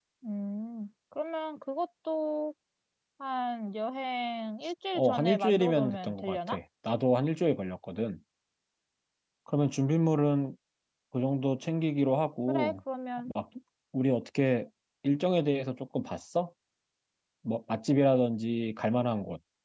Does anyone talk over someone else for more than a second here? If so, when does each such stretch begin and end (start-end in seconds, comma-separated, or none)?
5.0-6.6